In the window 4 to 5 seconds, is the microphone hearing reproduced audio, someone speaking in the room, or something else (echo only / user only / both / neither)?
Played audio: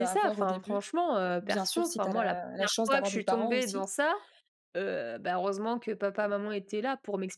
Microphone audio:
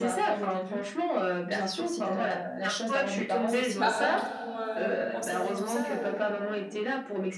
both